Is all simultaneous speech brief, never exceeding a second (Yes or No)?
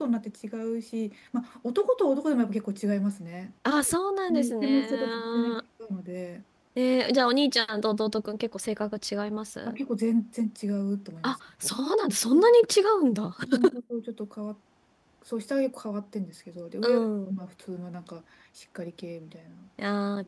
No